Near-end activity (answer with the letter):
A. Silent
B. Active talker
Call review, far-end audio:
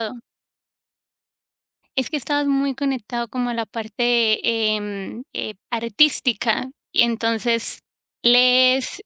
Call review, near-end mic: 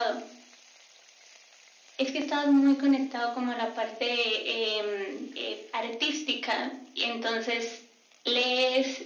A